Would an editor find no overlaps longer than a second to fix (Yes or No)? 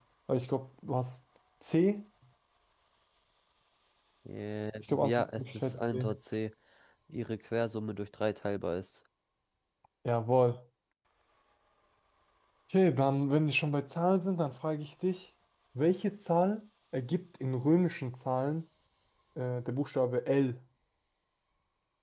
No